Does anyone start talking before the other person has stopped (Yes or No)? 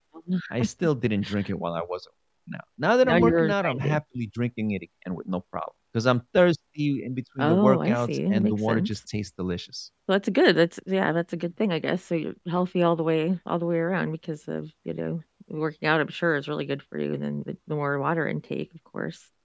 Yes